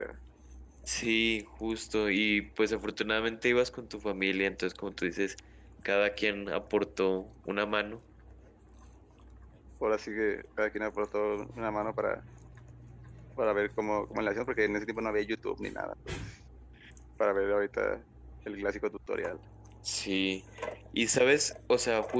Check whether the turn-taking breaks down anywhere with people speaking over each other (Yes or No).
No